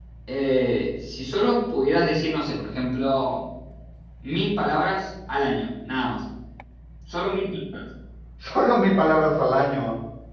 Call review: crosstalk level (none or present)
none